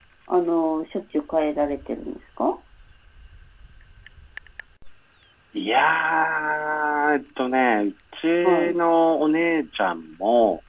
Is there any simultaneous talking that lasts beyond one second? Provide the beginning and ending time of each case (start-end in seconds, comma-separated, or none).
none